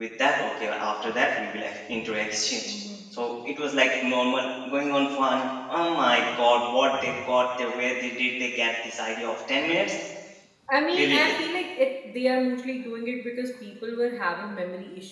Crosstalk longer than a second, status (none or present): none